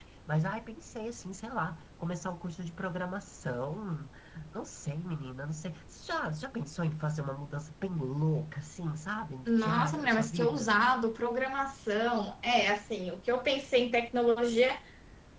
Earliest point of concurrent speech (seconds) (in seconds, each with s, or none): 9.5 s